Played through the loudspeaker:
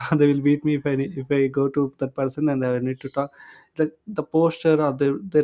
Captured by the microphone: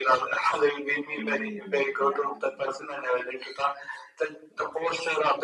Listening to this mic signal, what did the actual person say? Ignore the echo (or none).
Mm, yeah.